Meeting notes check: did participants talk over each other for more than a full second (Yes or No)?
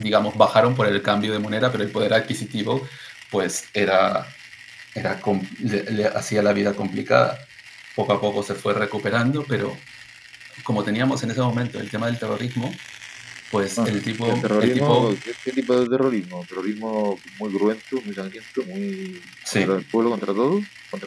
Yes